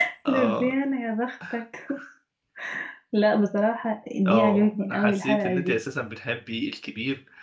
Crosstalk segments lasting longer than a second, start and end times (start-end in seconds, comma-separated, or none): 4.3-5.7